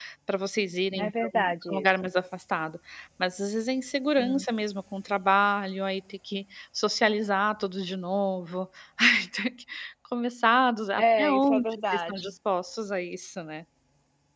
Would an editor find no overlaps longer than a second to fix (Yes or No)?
No